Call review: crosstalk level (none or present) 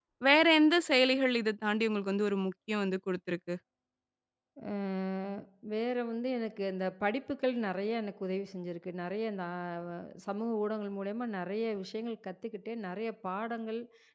none